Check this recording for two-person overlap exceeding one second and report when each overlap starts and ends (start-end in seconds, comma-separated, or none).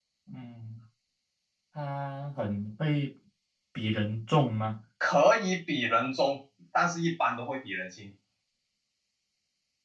none